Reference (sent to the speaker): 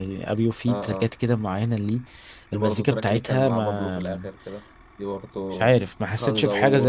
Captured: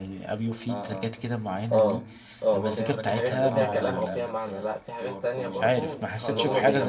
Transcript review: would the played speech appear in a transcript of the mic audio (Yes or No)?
Yes